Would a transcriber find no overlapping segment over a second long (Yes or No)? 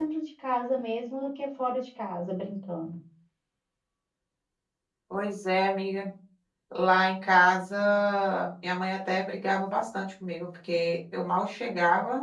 Yes